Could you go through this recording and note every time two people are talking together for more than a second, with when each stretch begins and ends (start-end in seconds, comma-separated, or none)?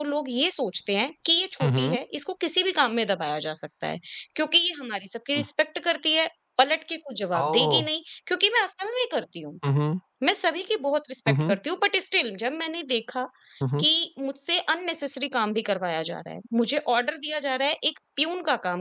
none